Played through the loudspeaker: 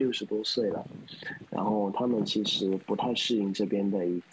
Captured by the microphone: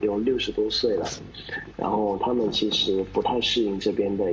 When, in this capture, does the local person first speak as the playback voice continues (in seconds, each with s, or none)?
none